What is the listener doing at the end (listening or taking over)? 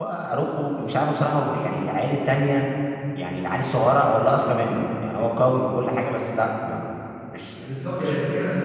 taking over